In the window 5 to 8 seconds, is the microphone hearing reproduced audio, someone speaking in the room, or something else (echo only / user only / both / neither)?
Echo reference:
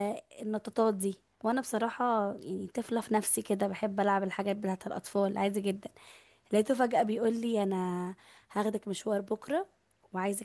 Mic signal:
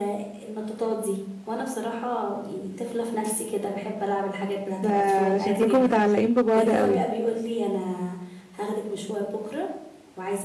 both